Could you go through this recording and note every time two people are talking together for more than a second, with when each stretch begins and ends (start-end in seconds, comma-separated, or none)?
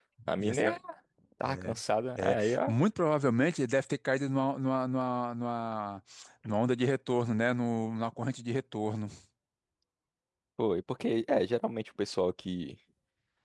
none